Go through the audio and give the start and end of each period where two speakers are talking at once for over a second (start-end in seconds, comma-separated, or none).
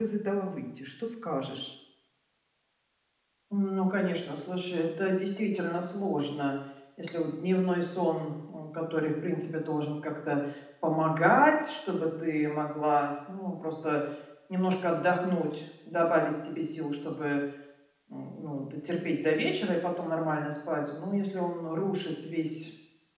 none